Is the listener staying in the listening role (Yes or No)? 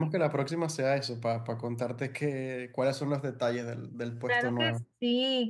No